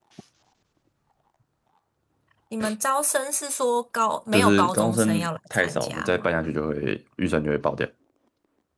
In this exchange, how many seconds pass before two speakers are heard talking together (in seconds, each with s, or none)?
4.3 s